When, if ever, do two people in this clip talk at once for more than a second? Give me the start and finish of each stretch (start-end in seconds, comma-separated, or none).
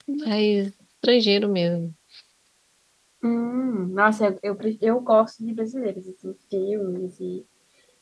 none